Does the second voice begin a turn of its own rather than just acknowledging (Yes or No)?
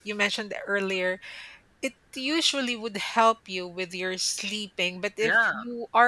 No